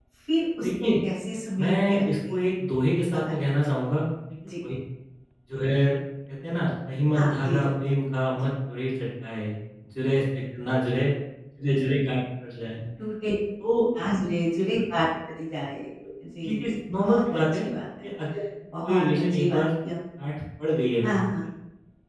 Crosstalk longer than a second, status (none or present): present